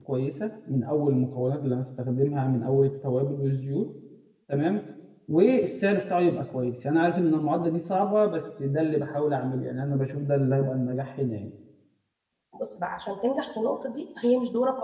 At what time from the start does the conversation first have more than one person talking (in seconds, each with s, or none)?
none